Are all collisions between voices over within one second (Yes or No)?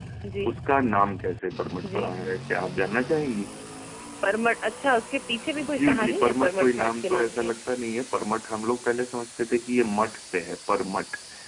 No